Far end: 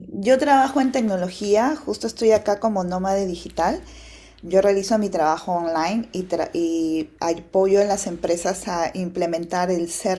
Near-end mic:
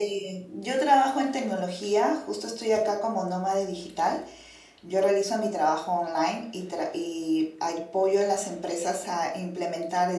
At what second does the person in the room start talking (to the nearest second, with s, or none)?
none